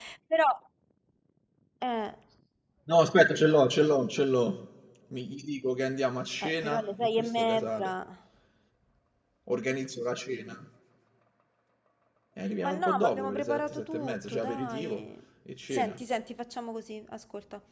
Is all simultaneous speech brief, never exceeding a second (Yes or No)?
No